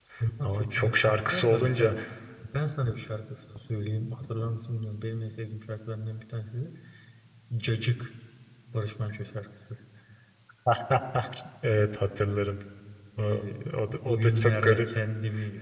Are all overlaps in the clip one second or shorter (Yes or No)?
No